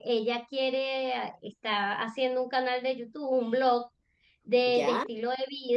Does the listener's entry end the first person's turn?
No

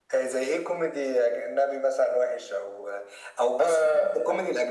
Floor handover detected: No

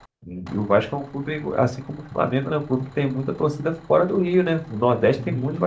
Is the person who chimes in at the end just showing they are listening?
No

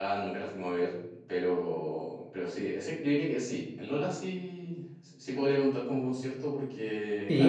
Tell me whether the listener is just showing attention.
No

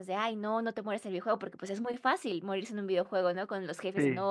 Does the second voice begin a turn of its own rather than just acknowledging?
No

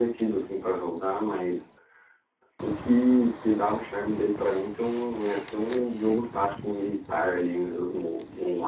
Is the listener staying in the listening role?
No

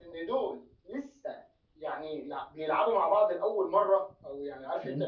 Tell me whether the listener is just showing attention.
Yes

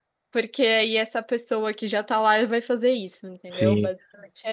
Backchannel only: No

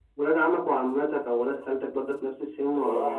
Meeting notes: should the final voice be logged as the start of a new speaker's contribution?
Yes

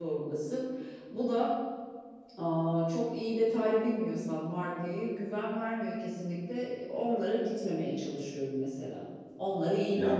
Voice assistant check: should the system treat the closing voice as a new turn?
Yes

